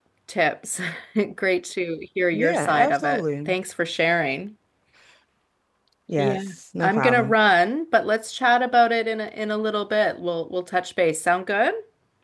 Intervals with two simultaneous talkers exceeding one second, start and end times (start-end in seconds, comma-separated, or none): 2.3-3.5